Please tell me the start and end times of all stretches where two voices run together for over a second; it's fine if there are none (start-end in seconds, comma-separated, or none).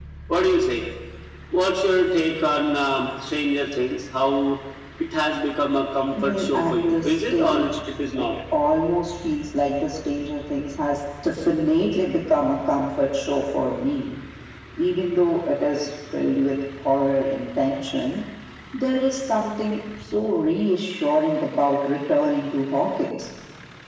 6.1-7.7